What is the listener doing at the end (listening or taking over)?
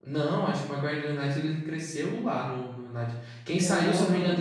listening